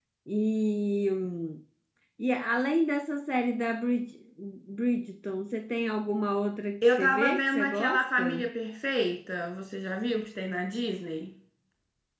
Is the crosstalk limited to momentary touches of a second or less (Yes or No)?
No